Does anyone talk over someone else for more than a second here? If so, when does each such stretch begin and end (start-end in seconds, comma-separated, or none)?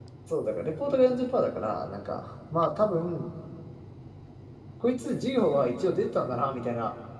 none